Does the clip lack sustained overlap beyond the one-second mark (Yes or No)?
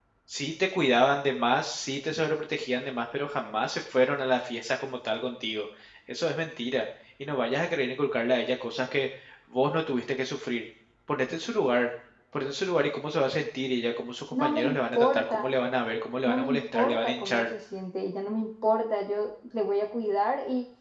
No